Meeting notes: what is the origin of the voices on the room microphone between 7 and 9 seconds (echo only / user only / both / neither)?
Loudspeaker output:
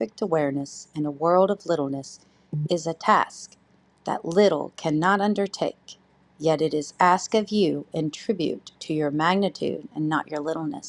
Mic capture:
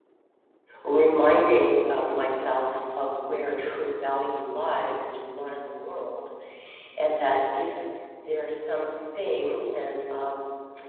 user only